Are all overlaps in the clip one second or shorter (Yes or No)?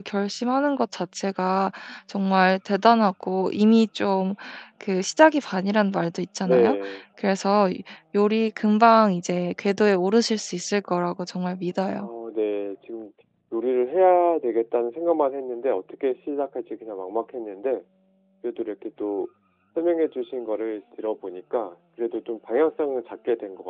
Yes